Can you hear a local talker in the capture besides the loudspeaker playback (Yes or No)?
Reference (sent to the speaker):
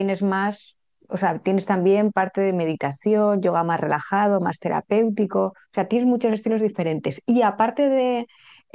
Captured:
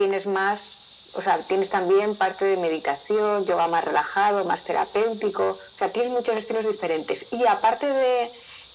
No